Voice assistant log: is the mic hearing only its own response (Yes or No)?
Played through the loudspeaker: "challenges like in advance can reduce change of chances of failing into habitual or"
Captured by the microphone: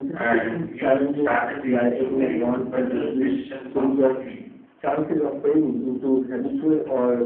No